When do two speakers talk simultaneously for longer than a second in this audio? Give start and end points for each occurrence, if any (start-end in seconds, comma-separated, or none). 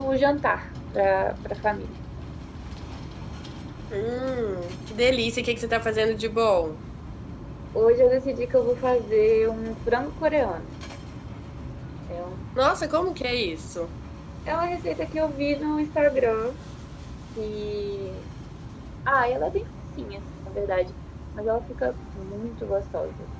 none